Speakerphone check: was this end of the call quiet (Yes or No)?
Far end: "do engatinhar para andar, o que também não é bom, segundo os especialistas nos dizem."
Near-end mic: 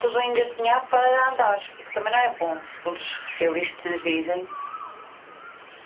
Yes